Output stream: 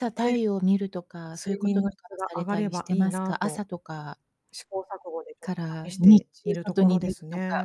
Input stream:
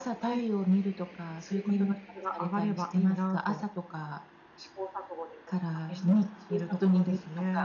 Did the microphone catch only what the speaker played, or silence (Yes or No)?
Yes